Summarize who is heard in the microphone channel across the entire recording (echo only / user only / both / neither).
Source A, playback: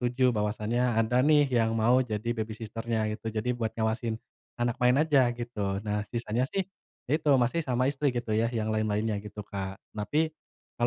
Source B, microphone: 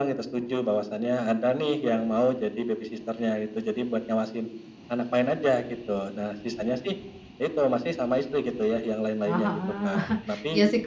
both